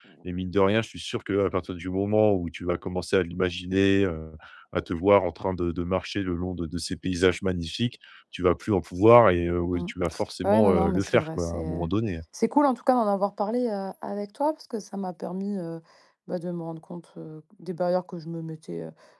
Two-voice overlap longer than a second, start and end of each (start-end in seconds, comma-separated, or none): 10.4-11.9